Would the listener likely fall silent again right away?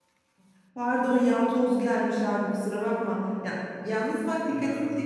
Yes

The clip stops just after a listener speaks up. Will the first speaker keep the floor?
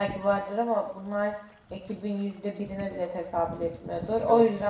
Yes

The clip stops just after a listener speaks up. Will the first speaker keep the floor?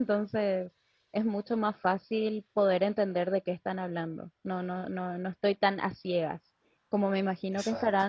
Yes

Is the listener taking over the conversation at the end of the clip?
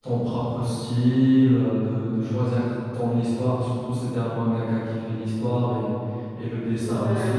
No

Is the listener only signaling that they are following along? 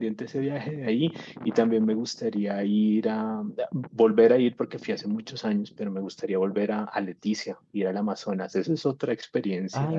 No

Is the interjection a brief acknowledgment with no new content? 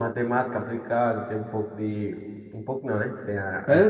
No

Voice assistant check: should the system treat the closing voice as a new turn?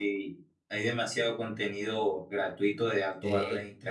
No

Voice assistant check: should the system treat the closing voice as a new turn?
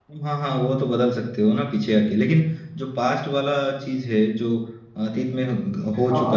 Yes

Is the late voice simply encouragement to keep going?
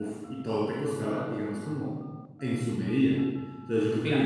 Yes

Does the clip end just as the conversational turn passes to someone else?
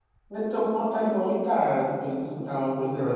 Yes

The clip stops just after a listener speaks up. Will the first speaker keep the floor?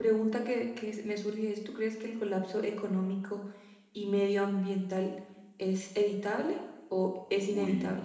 No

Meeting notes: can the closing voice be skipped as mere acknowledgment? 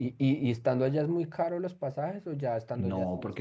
No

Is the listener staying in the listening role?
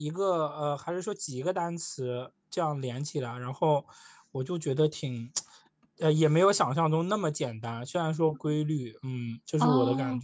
No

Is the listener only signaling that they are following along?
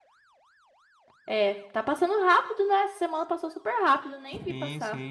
No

